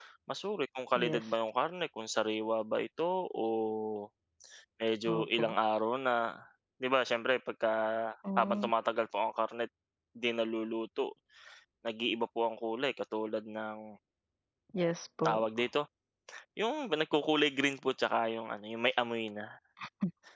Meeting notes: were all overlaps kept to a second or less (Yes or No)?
Yes